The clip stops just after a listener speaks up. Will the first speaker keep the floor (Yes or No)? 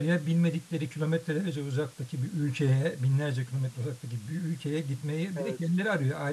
Yes